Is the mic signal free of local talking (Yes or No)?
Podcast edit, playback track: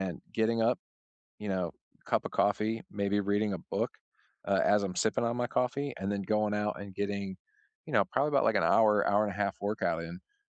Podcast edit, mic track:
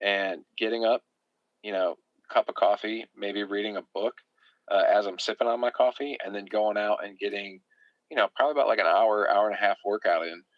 Yes